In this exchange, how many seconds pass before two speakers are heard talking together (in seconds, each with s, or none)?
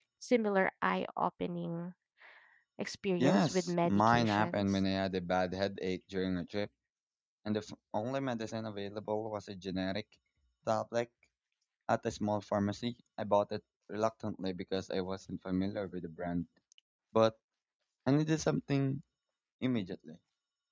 3.2 s